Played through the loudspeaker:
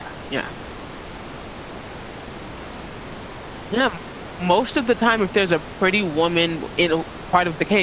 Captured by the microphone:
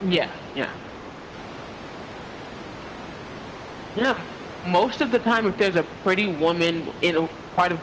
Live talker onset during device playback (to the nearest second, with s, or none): none